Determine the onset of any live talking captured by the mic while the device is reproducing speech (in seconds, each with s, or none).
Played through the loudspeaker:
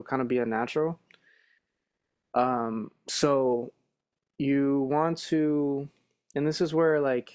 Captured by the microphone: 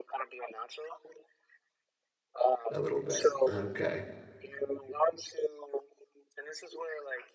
2.7 s